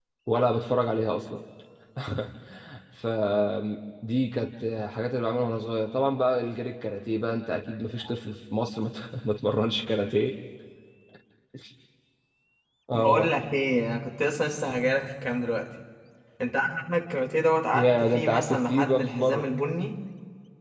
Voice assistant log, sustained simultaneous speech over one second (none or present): present